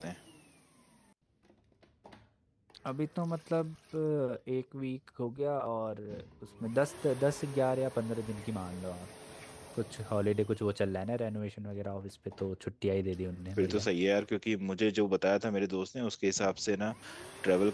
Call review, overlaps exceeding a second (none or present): none